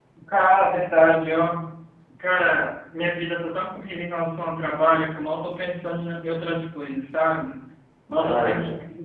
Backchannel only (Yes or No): Yes